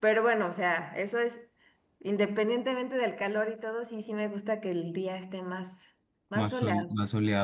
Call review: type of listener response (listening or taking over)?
taking over